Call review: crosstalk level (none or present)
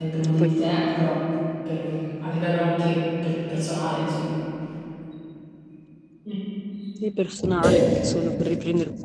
none